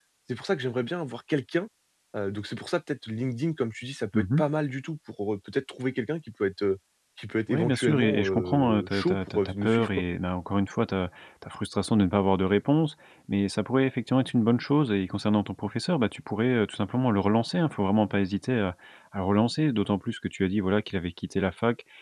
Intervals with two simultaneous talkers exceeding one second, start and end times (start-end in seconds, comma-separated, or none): 7.5-10.0